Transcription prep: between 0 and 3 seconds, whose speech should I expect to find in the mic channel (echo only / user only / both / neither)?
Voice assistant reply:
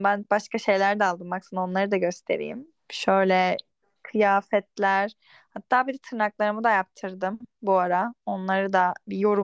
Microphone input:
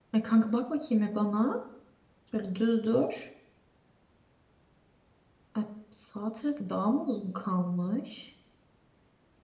user only